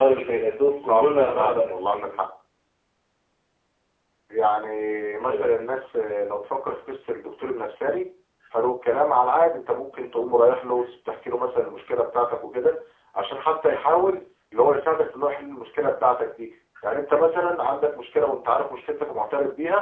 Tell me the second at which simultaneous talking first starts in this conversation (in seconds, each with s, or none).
0.8 s